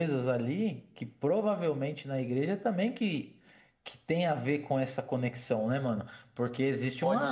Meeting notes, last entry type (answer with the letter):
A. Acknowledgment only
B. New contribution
A